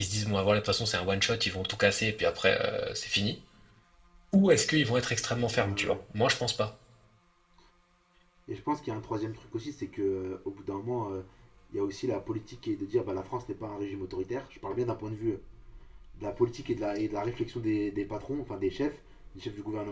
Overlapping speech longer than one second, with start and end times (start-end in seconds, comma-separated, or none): none